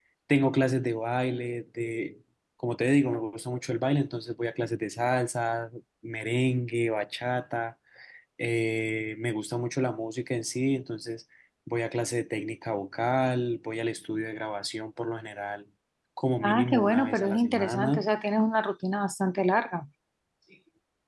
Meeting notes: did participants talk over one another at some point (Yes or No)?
Yes